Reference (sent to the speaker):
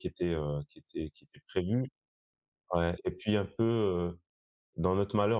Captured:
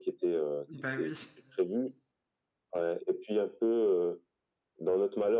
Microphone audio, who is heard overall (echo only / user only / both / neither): both